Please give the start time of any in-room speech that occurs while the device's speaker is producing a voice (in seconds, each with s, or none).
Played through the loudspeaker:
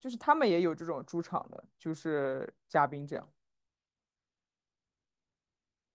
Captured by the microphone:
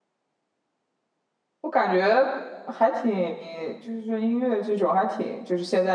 1.6 s